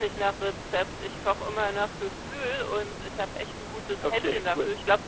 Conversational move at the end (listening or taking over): listening